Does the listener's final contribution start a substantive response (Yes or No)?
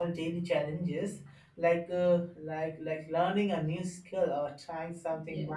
No